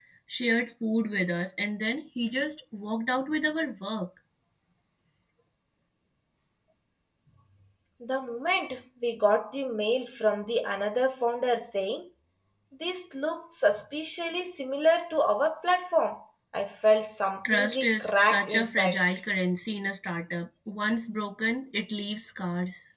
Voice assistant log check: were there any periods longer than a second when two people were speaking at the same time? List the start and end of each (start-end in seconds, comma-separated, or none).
17.4-19.0